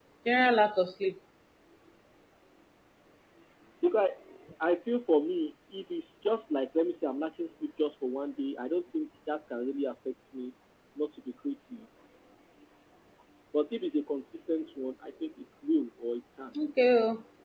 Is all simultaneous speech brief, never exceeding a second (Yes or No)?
Yes